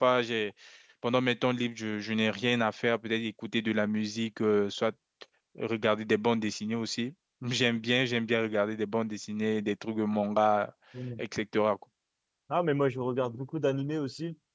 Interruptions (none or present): none